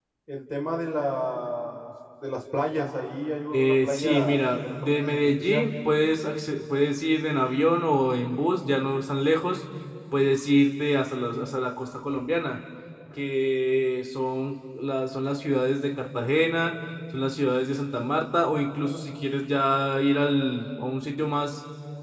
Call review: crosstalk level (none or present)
present